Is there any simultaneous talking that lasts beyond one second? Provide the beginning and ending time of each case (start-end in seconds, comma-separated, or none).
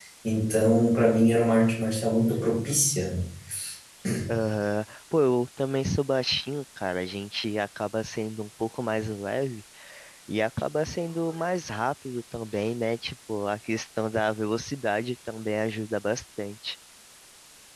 none